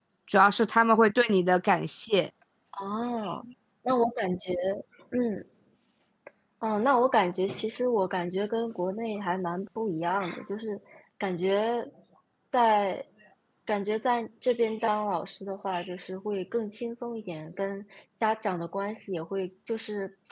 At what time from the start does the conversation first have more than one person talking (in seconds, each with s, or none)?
none